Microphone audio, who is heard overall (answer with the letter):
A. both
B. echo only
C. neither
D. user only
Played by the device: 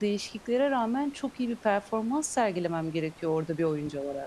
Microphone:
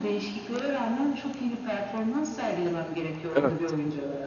A